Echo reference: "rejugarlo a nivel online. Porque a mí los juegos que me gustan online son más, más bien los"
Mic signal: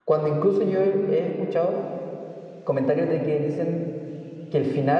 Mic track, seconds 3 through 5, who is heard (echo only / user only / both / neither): user only